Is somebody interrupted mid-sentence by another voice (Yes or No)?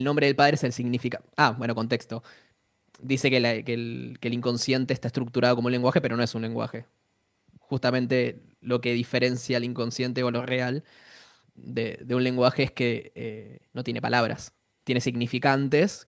No